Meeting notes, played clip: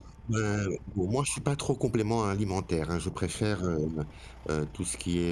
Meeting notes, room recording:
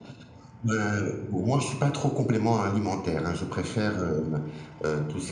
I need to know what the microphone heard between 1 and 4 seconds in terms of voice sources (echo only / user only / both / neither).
echo only